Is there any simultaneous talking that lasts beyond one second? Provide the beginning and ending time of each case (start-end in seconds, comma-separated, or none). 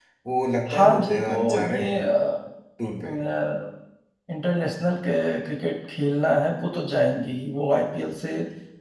0.7-2.0